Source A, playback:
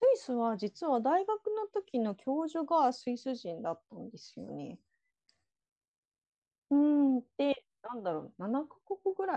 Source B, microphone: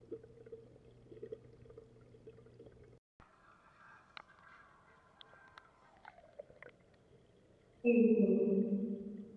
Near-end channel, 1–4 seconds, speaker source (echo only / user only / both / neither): neither